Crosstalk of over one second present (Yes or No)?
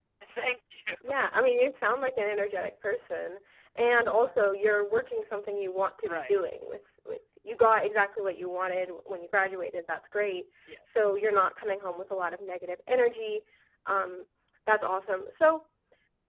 No